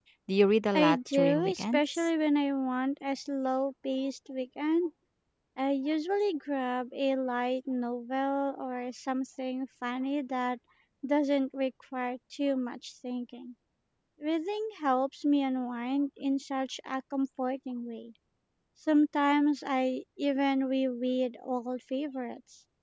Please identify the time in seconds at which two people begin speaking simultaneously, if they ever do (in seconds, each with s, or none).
0.7 s